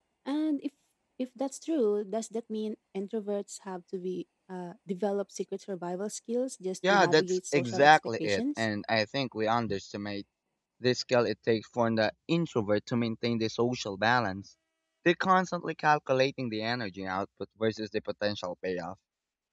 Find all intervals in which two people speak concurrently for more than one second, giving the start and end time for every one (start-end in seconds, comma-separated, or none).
6.9-8.6